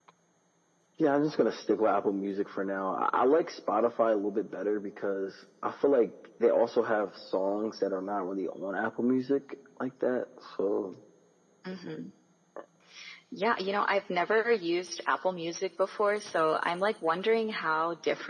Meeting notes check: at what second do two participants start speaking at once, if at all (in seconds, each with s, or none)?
none